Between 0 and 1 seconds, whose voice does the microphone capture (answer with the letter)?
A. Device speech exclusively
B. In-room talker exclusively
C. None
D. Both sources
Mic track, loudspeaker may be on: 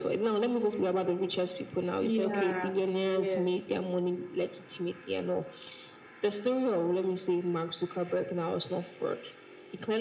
A